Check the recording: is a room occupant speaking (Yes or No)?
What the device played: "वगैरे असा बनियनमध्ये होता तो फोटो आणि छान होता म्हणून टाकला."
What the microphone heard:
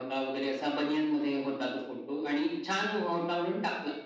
No